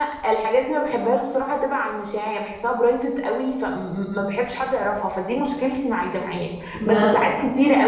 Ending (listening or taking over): listening